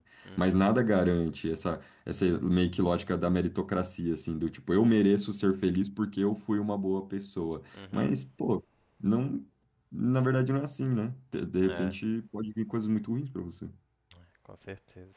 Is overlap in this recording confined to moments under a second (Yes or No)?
Yes